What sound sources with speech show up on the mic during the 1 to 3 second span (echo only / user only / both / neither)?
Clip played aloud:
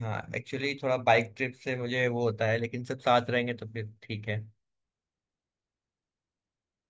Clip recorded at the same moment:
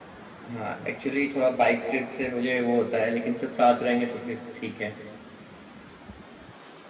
echo only